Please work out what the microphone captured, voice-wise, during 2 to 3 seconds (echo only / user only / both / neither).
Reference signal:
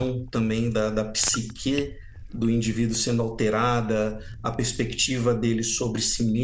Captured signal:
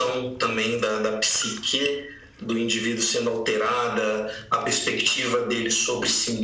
echo only